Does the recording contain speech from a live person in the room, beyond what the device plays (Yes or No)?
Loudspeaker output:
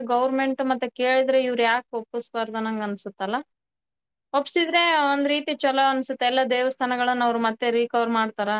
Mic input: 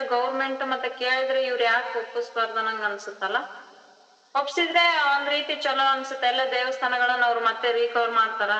No